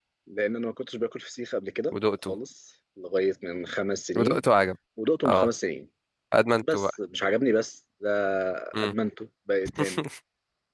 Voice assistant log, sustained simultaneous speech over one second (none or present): none